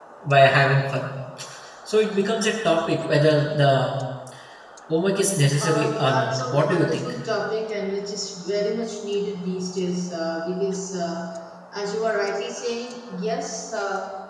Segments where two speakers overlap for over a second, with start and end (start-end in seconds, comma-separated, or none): 5.6-7.1